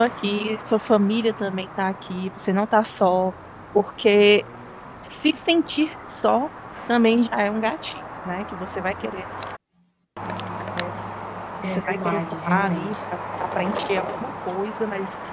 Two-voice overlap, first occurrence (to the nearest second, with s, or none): 12 s